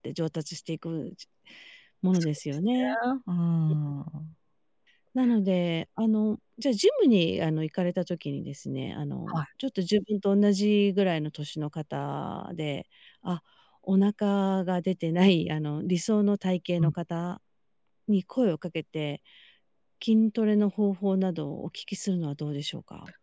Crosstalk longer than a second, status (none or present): none